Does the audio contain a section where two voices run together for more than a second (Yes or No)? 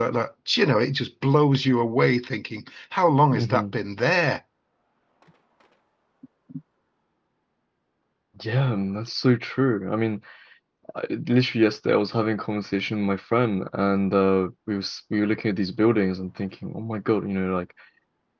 No